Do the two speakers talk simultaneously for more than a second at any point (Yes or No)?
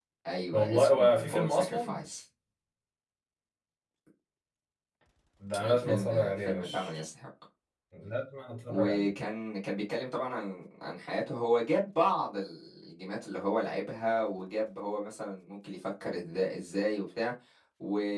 Yes